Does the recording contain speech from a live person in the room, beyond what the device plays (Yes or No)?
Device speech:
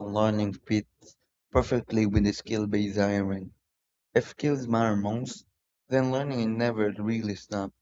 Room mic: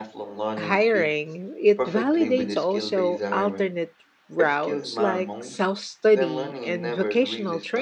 Yes